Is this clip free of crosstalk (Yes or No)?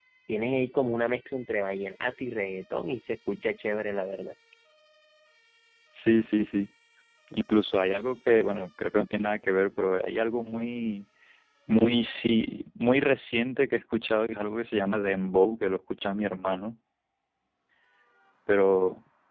Yes